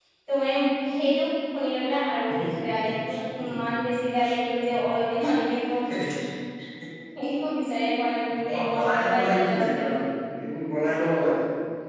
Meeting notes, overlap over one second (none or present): present